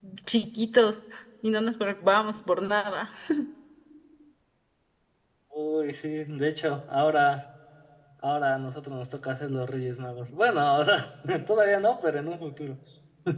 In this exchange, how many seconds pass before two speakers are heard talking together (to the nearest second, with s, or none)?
none